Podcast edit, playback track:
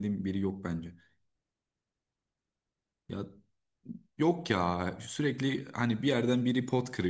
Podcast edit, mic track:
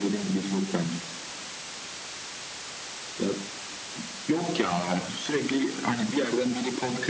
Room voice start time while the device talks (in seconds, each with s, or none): none